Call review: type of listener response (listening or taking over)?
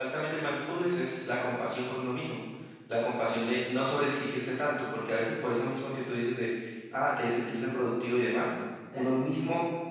listening